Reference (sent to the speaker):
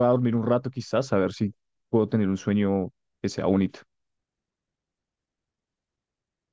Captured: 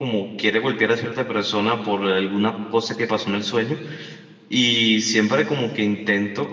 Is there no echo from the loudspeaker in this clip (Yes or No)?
Yes